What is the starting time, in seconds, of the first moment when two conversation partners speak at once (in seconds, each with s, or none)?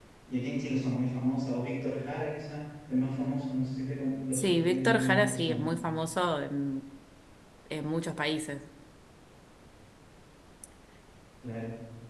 4.3 s